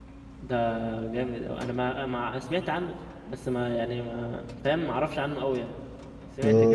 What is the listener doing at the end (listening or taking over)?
taking over